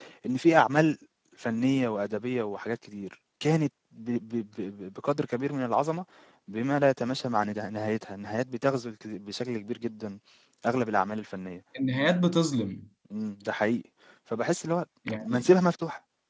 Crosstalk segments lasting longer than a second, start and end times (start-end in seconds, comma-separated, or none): none